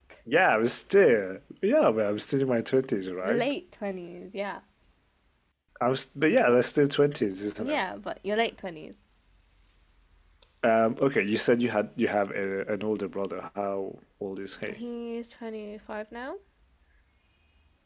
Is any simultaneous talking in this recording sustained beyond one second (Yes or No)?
No